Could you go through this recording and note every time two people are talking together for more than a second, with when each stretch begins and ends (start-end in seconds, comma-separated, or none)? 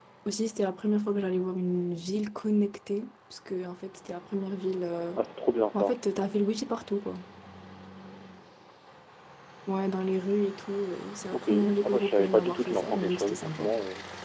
11.3-13.7